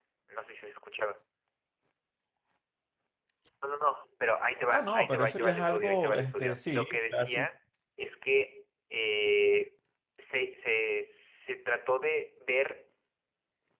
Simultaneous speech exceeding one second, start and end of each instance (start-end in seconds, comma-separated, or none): 4.7-7.5